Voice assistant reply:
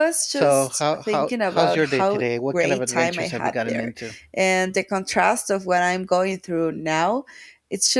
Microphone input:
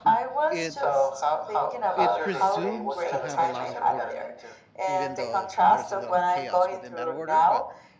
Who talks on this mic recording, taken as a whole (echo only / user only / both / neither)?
both